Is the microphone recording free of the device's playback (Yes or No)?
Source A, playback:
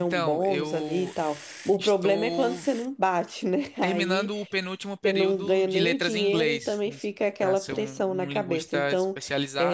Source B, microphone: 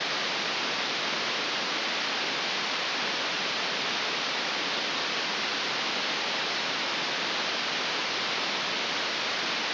Yes